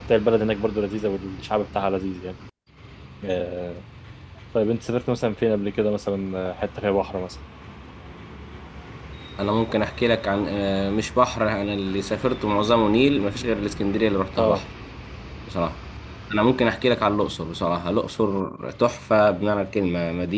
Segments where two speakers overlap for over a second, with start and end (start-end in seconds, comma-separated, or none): none